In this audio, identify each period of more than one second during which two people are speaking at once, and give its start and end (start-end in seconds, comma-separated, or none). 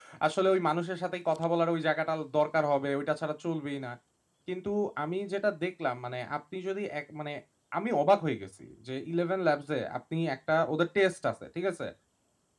none